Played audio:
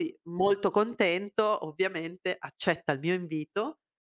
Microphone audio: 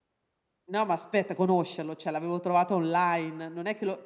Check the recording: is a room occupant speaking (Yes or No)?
Yes